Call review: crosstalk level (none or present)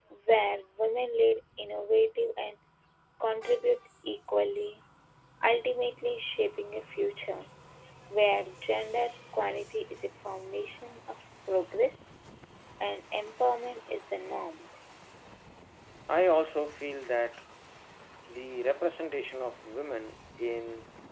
none